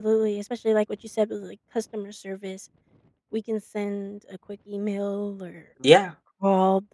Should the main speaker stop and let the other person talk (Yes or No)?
No